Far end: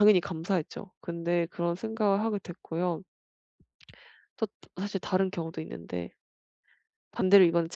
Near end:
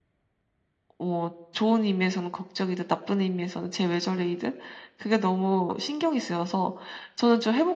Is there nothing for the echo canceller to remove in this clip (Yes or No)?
Yes